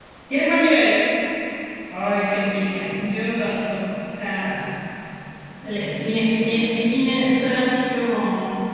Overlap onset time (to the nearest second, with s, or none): none